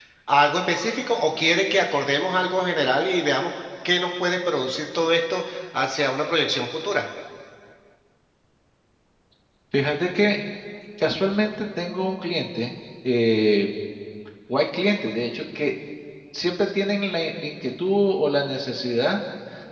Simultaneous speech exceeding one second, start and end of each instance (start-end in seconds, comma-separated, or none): none